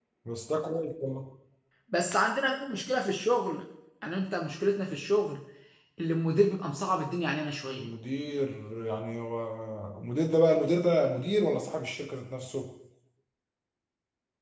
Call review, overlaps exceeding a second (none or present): none